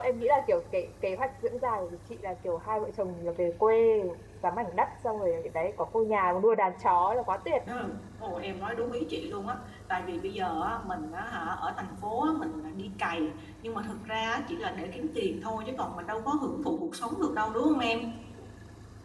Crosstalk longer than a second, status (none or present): none